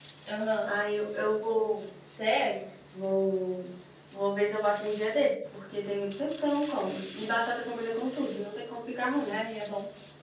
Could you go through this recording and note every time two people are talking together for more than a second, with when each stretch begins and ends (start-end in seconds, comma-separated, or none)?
none